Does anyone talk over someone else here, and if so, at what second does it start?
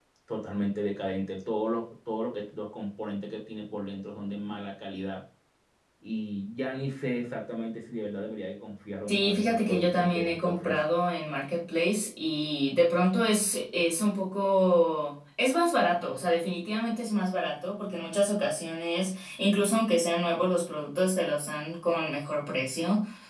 9.1 s

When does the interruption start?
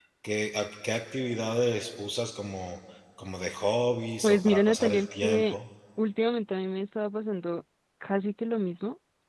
4.2 s

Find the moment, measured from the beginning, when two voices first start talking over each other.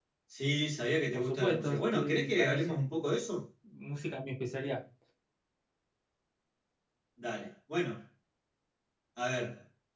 1.1 s

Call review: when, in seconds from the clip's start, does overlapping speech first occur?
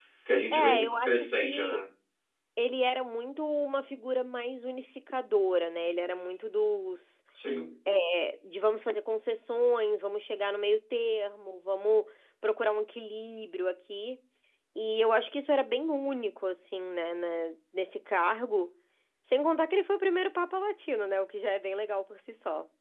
0.5 s

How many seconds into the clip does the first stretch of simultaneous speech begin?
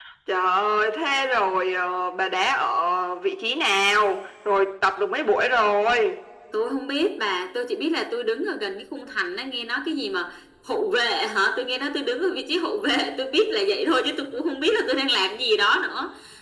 none

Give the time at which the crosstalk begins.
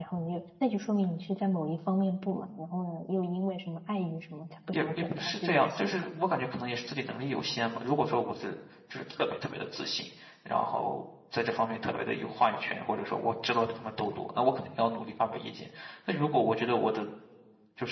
4.7 s

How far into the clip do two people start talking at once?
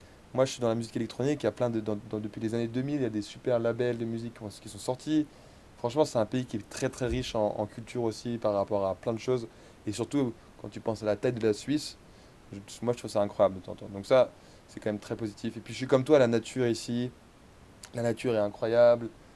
none

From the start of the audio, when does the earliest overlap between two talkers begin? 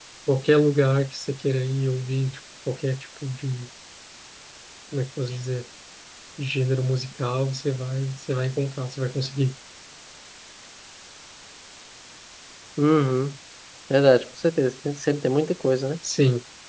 none

